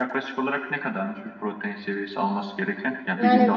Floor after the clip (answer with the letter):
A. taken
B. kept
B